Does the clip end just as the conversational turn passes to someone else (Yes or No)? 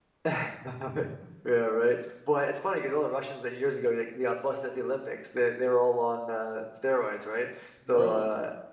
No